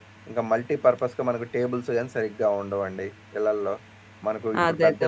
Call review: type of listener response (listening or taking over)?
listening